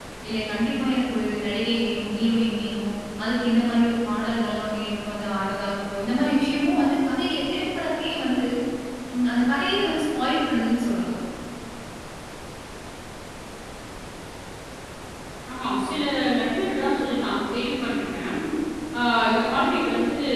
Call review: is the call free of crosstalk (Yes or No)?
Yes